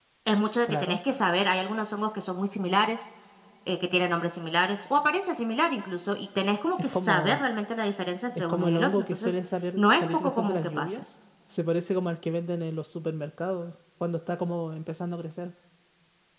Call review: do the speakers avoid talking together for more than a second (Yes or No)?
No